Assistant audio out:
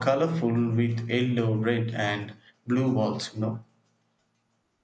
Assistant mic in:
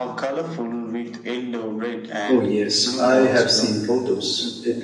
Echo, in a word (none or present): present